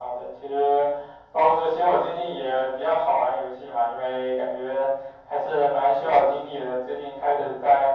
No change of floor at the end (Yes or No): Yes